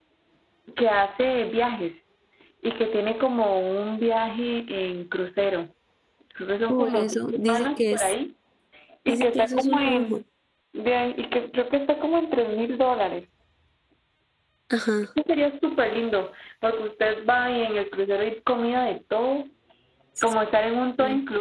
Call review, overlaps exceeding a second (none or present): present